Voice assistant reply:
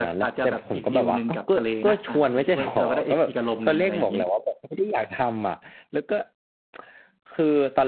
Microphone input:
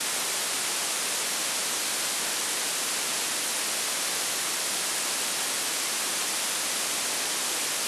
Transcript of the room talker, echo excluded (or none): none